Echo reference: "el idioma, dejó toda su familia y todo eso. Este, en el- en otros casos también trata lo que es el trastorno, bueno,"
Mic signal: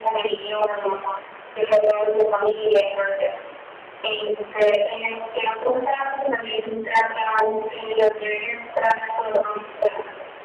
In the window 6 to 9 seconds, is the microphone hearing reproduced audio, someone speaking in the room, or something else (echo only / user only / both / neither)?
echo only